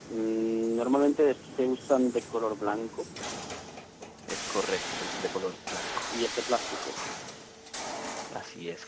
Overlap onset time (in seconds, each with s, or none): none